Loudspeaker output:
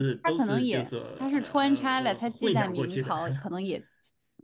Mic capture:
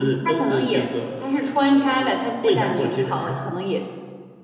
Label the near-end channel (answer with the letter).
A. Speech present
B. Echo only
B